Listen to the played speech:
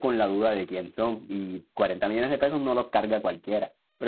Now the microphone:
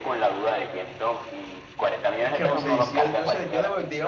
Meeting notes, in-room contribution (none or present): present